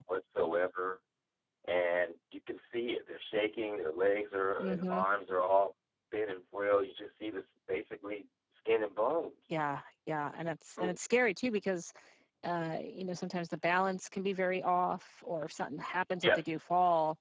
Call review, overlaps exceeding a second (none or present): none